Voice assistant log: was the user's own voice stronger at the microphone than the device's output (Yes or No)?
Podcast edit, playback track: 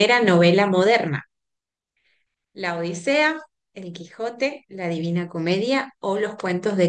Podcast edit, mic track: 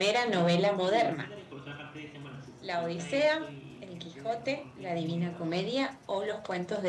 No